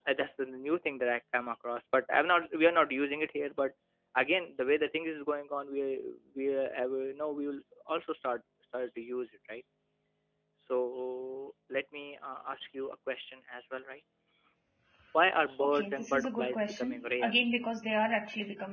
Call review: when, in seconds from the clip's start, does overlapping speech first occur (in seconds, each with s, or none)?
15.6 s